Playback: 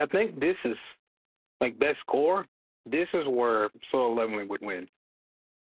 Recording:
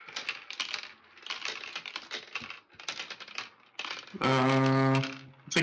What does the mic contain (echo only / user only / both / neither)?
user only